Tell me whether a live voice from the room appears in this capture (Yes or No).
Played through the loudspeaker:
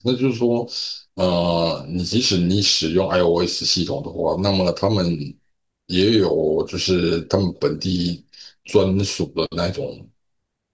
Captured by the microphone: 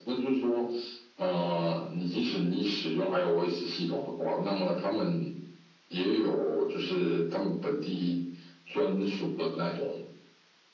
No